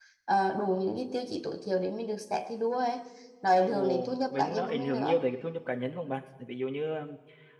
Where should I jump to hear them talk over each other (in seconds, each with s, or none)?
3.6 s